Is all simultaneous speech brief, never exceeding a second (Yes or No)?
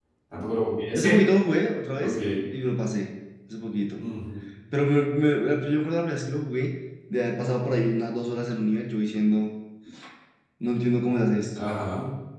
Yes